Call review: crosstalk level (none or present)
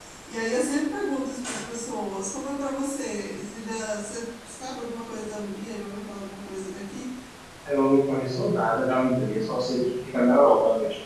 none